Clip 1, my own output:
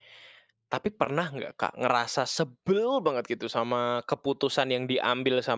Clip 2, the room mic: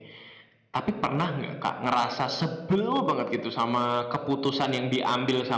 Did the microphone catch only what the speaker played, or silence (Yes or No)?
Yes